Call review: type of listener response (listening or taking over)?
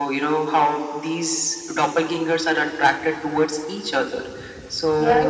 taking over